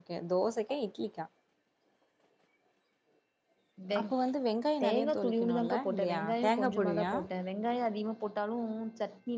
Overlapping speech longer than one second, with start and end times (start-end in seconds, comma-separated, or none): 4.8-7.1